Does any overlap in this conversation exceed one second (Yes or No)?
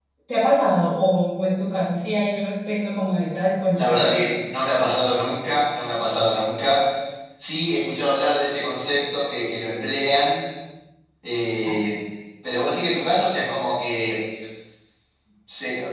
No